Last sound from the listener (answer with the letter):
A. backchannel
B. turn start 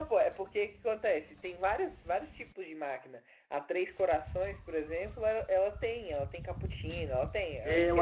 B